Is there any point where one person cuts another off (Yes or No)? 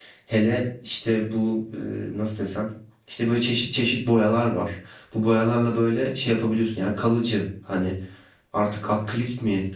No